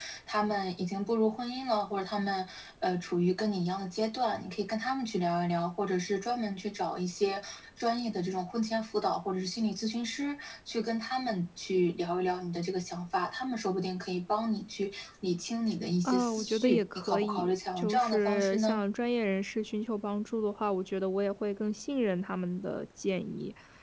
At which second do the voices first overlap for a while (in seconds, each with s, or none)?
16.0 s